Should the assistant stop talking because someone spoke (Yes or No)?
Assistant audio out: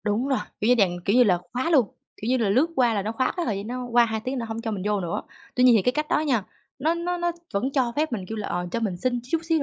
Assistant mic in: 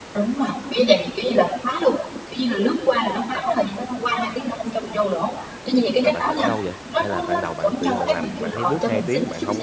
Yes